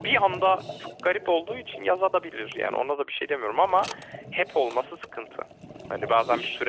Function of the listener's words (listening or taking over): listening